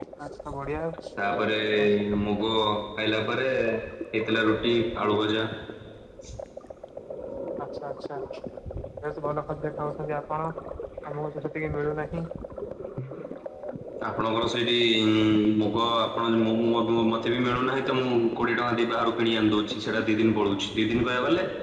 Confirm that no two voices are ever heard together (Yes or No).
Yes